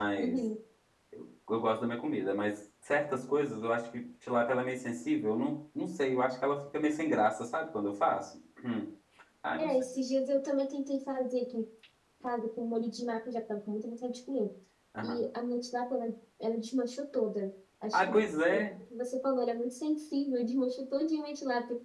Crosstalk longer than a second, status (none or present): none